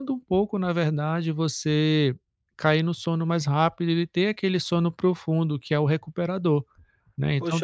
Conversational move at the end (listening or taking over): taking over